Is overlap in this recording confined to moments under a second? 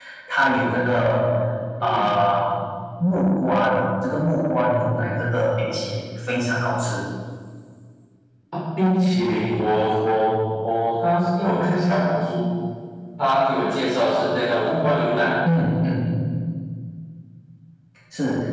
Yes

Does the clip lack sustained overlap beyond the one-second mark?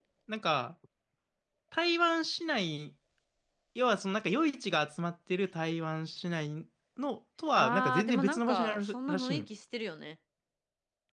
No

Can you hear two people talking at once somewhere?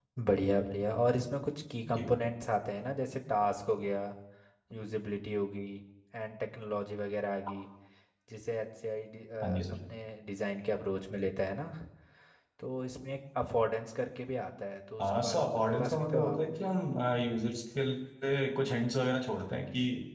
Yes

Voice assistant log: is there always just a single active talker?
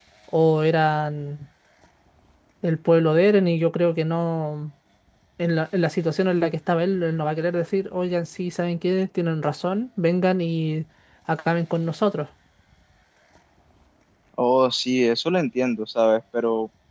Yes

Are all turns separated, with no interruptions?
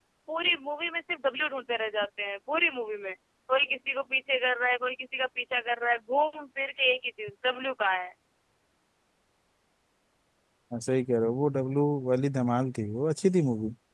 Yes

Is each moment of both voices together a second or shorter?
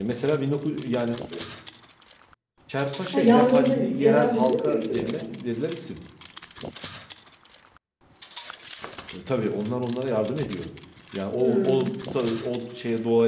No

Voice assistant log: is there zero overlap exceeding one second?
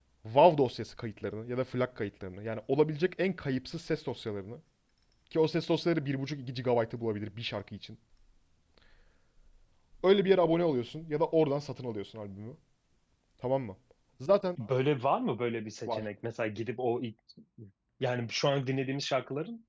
Yes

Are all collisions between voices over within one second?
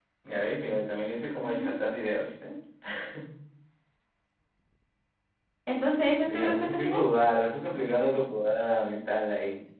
No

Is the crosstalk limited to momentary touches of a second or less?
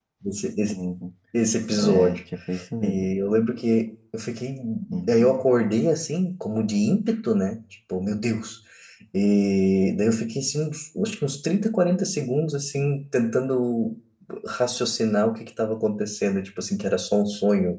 Yes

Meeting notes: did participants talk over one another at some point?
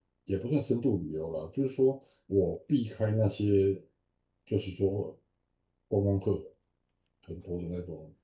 No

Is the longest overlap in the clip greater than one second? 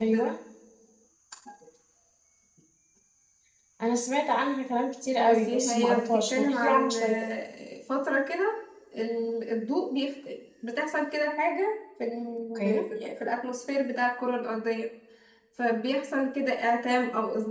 Yes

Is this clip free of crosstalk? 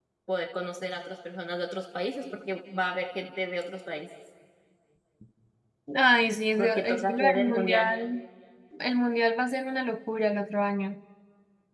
No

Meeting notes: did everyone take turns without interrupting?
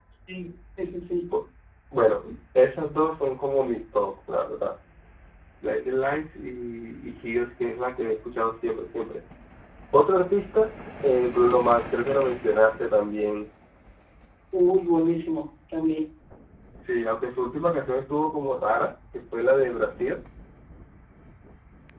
Yes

